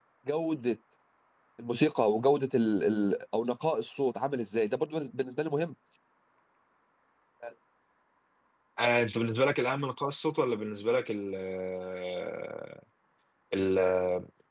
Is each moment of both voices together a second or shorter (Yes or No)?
Yes